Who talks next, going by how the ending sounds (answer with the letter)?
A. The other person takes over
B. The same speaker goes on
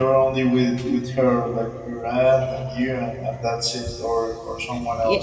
A